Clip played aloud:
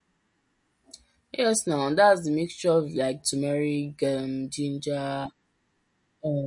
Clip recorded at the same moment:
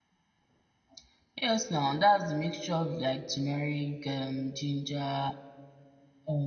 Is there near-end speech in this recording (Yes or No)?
No